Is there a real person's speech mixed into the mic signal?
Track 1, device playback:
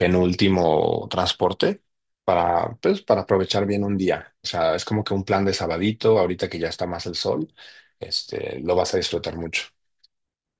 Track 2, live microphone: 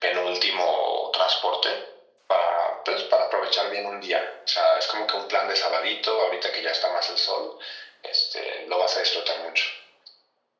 No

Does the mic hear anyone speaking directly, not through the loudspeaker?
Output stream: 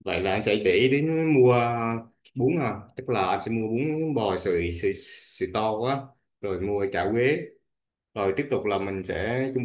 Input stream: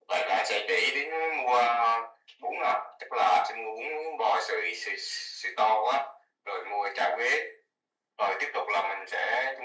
No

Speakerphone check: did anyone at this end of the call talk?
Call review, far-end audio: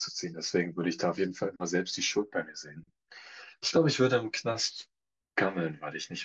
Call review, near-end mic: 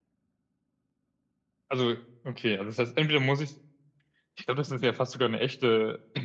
Yes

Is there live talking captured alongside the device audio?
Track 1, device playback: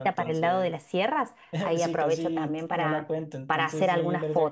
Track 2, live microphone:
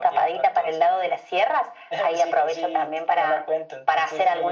No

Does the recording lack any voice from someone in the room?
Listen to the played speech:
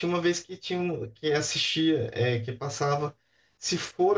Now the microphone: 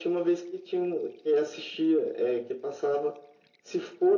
Yes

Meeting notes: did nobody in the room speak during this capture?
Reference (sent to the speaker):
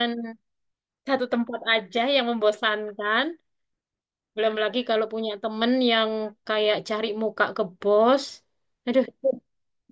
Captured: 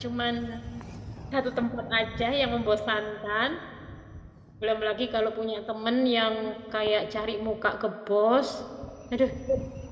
Yes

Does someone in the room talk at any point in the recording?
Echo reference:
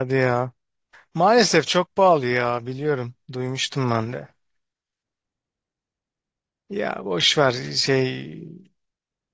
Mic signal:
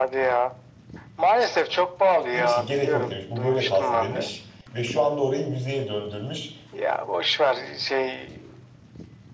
Yes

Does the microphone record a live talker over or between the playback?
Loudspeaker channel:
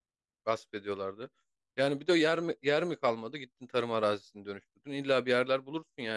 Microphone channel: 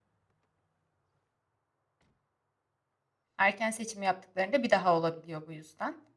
Yes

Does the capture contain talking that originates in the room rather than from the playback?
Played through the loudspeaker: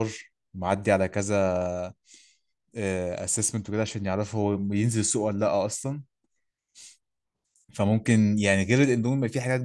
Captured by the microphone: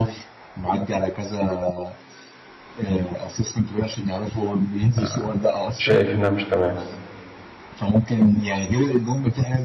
Yes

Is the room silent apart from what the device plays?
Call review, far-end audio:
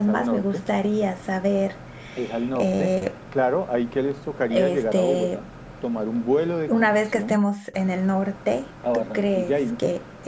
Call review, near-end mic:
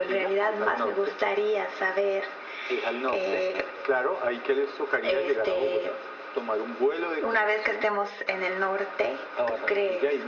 Yes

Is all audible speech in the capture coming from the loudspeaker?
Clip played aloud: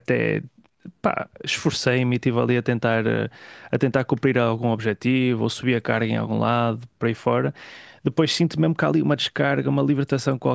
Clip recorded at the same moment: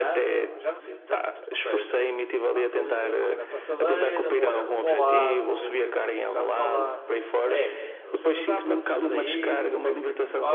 No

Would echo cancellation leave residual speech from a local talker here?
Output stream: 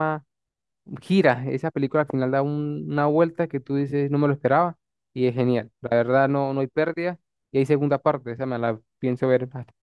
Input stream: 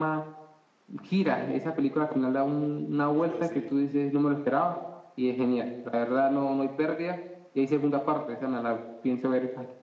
Yes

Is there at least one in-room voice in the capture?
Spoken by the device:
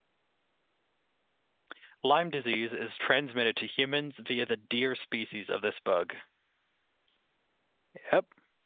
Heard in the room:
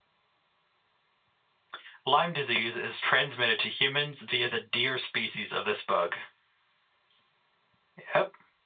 No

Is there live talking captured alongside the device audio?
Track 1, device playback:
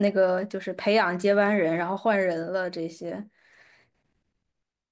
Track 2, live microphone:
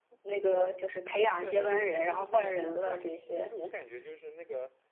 Yes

